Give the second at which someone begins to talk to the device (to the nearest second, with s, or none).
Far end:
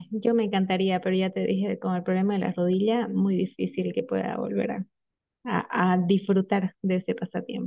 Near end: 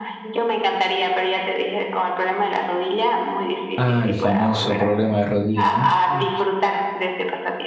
4 s